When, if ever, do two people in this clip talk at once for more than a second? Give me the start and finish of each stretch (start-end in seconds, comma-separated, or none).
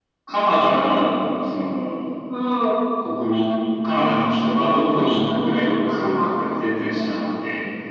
5.1-6.3